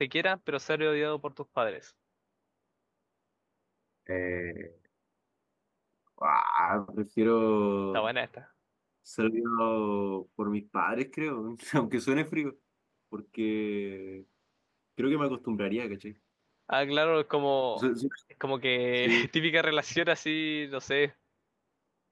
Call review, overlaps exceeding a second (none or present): none